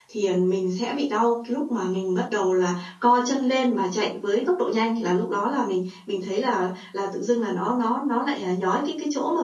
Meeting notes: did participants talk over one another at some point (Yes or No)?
No